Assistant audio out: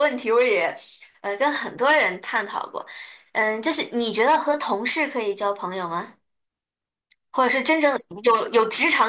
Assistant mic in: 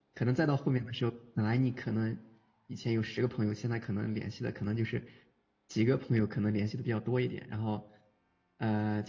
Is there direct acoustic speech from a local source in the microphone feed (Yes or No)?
Yes